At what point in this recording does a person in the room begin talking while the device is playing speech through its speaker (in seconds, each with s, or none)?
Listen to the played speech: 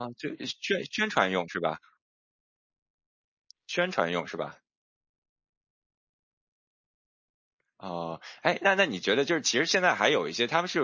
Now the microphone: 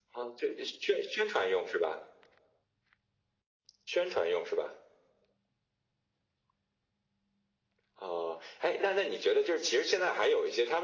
none